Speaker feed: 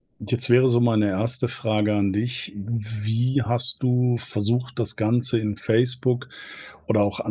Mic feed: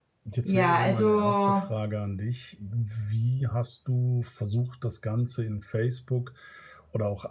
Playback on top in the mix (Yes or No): No